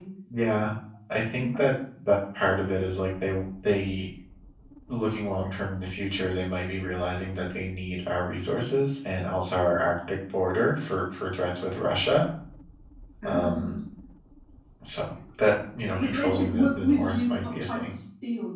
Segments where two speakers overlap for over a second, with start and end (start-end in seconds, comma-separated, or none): 15.9-18.0